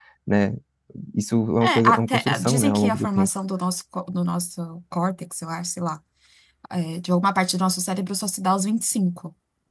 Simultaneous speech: Yes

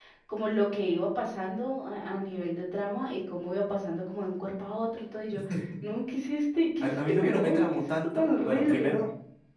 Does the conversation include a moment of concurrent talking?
Yes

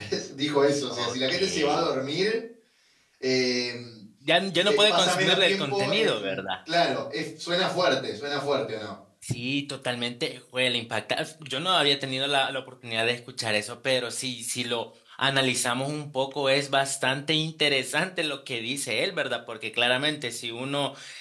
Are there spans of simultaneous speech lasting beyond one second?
Yes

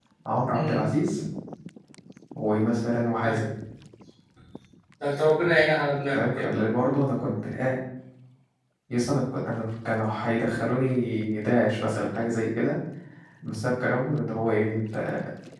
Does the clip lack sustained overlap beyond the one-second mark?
Yes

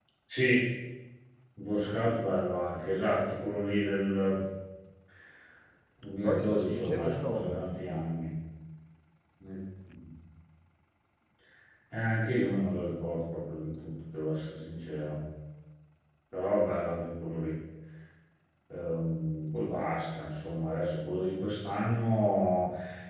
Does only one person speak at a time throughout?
No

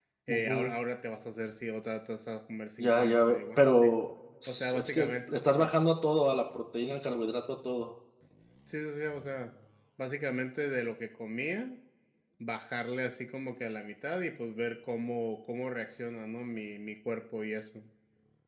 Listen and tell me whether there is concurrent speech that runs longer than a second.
Yes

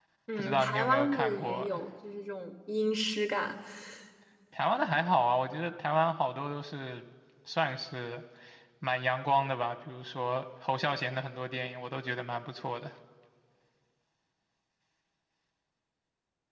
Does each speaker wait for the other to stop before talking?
No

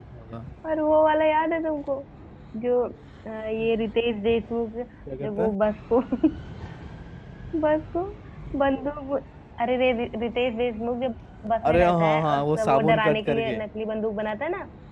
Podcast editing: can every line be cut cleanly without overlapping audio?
No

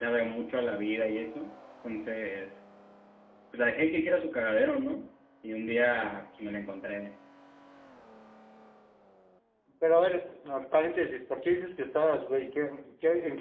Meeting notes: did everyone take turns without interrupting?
Yes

